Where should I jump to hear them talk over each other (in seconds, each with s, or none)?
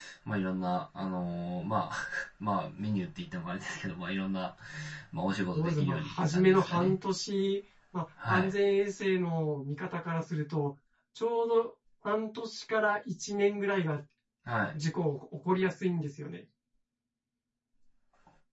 5.5 s